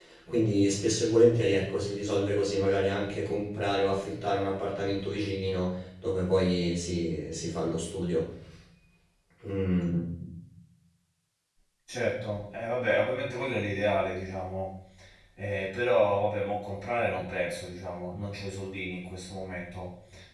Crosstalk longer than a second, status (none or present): none